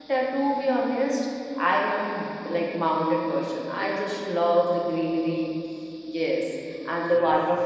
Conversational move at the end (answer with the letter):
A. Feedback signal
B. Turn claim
A